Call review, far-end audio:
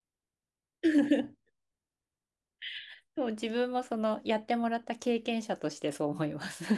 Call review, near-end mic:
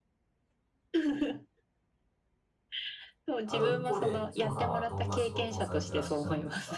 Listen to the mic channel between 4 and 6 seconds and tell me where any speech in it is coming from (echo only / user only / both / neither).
both